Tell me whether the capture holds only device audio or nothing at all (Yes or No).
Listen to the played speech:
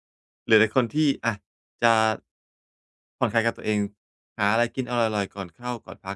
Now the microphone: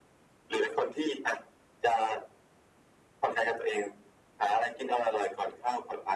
Yes